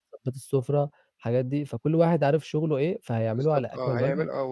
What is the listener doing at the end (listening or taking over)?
taking over